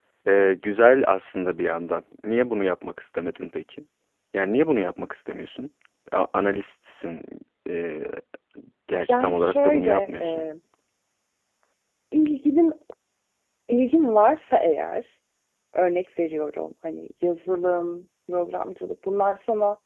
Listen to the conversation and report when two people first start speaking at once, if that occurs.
9 s

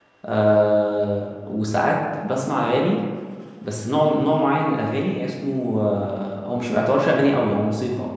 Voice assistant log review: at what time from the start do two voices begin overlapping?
none

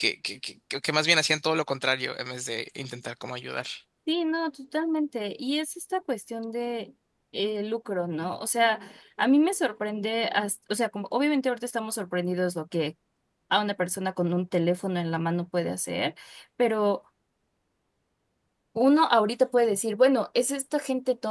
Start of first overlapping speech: none

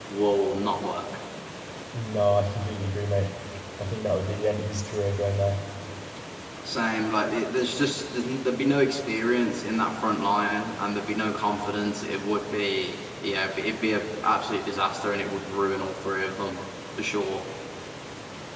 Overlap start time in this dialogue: none

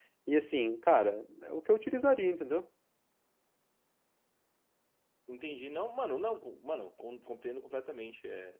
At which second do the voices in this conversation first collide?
none

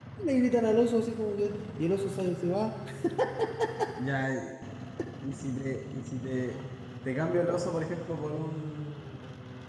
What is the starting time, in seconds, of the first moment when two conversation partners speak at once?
none

